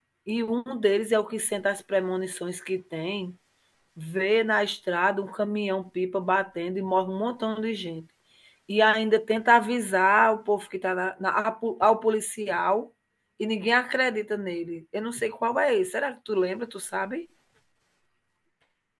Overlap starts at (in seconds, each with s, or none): none